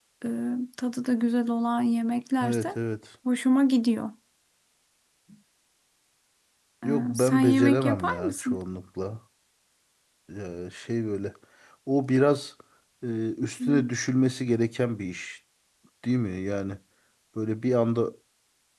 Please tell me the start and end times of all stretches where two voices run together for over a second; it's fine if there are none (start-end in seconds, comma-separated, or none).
6.8-8.6